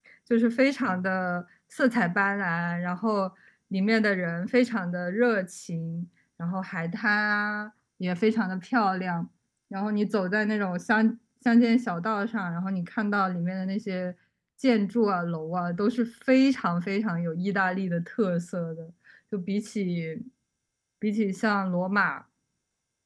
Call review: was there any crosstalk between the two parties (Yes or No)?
No